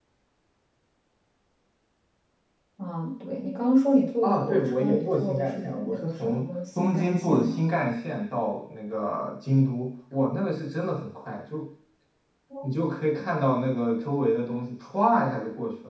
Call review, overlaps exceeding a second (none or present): present